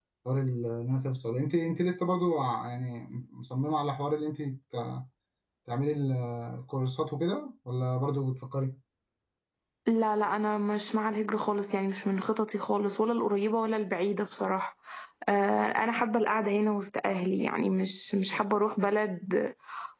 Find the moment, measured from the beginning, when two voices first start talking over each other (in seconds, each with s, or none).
none